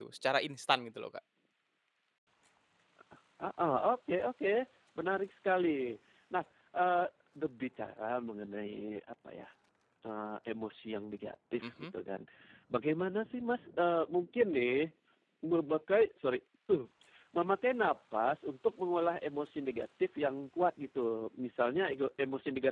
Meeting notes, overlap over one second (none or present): none